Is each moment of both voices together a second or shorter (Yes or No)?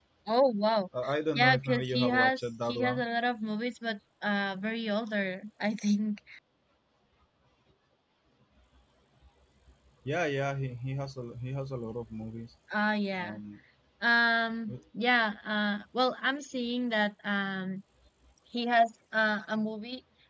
No